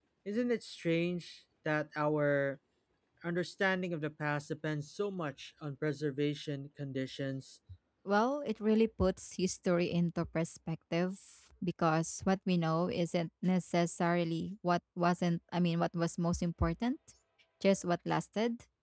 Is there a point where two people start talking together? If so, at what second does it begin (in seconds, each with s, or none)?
none